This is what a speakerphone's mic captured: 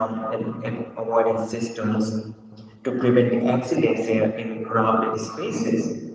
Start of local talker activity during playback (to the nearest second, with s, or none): none